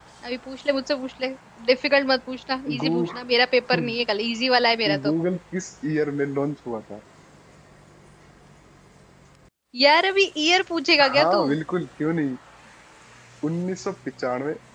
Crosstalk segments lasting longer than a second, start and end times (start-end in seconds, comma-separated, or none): none